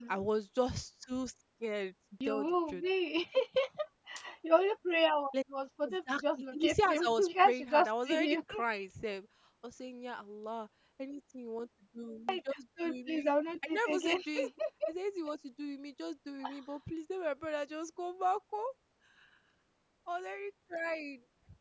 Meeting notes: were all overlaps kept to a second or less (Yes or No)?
No